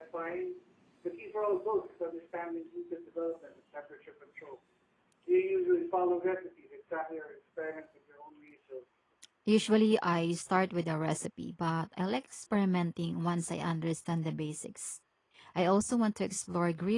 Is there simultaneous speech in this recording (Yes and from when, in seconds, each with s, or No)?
No